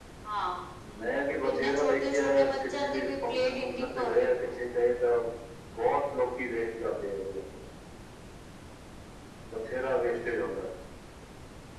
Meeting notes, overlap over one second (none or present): present